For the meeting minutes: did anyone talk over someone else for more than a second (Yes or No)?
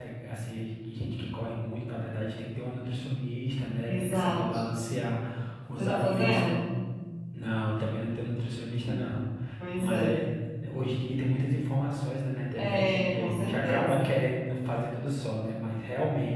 Yes